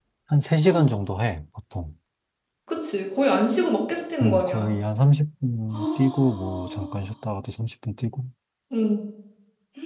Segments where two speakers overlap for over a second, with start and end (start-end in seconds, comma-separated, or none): 5.7-7.0